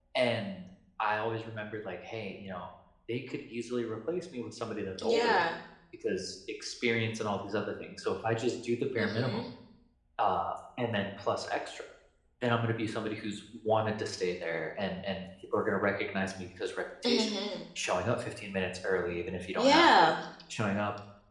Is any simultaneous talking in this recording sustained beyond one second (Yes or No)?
No